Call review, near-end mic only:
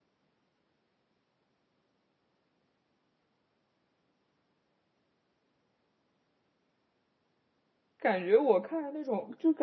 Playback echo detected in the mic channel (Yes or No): No